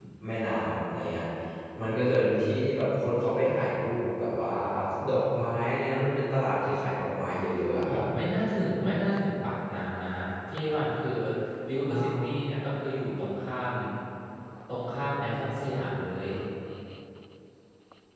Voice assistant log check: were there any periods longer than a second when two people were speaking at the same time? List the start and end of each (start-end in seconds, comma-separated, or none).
none